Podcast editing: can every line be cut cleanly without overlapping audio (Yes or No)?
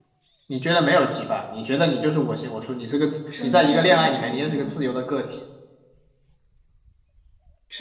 No